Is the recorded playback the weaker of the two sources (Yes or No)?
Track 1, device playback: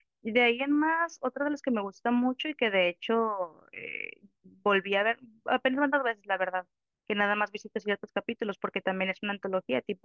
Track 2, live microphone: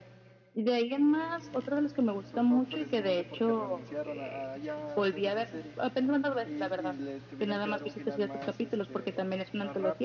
No